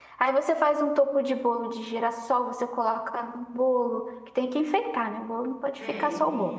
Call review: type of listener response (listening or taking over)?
taking over